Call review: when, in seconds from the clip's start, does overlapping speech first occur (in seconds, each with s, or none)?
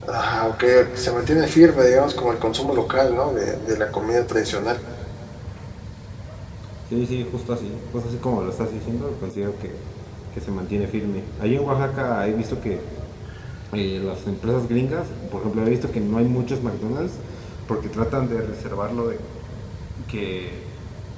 none